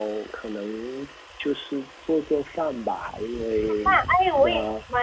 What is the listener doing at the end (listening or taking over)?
taking over